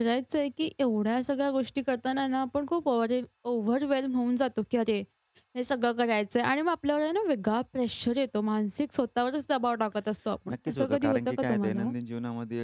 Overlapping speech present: Yes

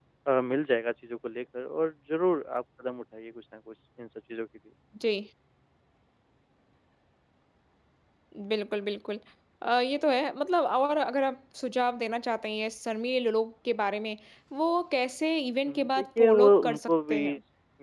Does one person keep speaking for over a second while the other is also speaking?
Yes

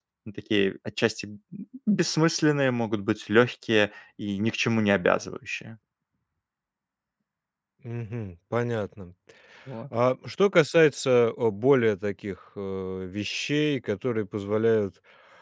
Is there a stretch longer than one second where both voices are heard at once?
No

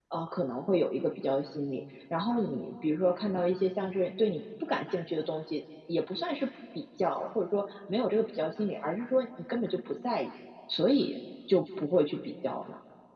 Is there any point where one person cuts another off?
No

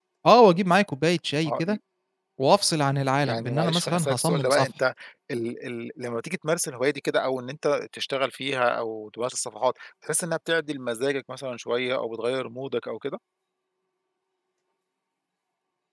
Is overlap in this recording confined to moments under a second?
No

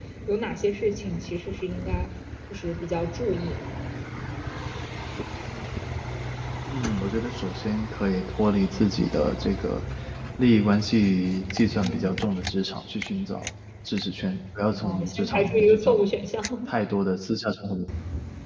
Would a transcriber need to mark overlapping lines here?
Yes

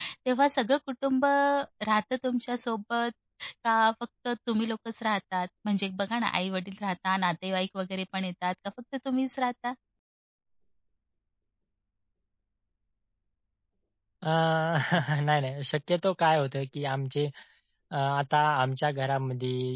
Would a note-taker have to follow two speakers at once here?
No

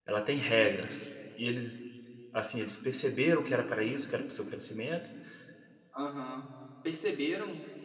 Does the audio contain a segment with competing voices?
No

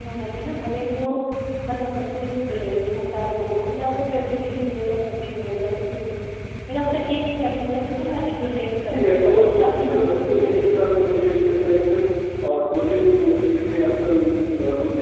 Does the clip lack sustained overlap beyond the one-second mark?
No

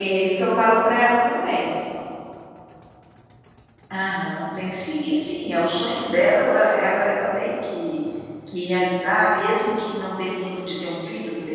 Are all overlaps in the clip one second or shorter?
Yes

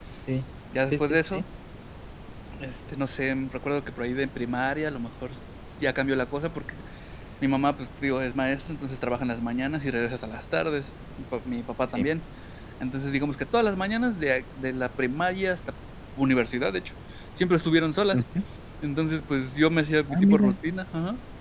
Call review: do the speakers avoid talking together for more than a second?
Yes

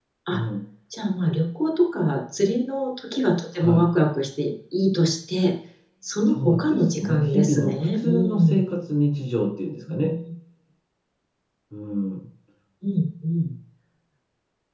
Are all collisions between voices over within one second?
No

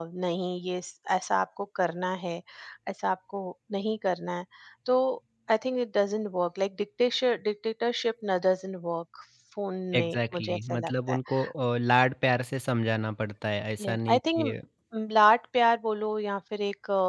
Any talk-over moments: Yes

